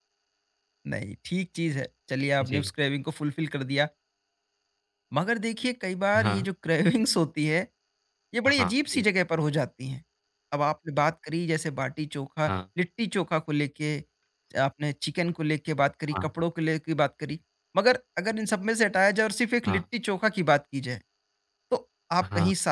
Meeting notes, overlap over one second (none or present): none